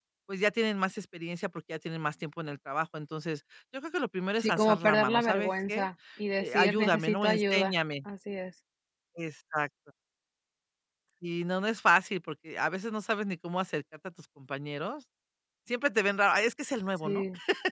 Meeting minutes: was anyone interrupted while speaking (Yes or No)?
Yes